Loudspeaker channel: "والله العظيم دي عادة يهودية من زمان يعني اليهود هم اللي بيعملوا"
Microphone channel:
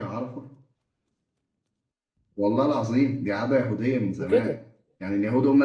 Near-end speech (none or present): present